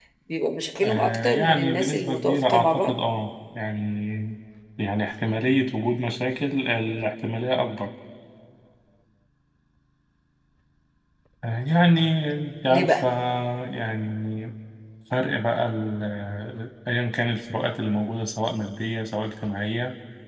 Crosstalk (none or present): present